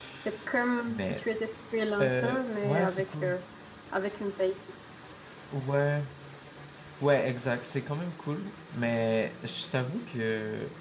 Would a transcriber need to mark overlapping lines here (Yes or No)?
Yes